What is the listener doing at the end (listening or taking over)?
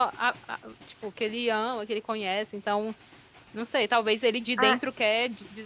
listening